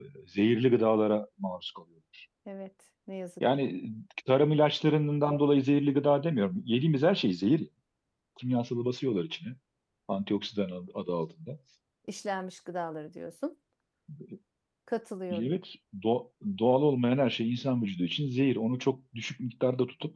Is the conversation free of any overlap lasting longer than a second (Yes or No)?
Yes